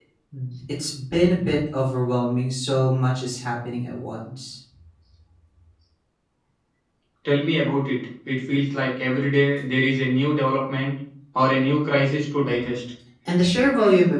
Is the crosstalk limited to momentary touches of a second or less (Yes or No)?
Yes